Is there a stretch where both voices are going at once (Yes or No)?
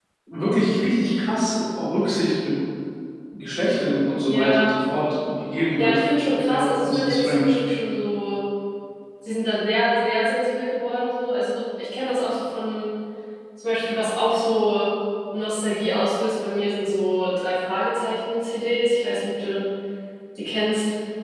Yes